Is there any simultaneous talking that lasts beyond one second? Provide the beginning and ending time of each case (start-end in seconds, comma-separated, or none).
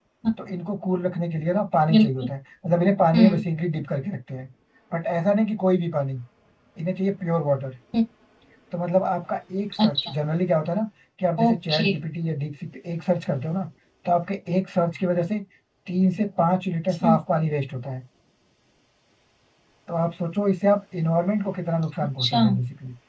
none